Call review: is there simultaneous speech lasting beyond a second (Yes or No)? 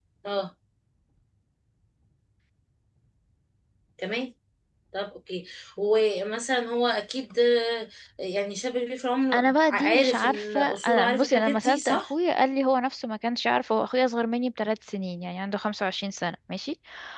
Yes